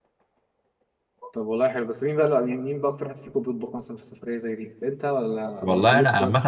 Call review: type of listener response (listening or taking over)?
taking over